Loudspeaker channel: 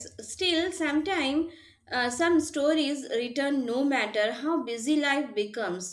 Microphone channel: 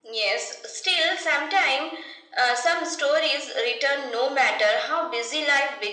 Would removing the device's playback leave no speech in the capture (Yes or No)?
Yes